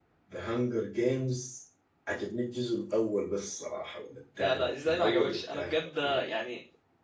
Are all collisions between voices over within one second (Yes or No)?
No